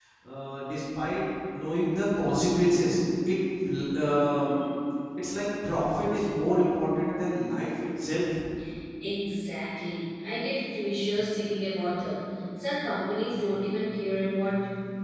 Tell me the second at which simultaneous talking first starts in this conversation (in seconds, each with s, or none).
none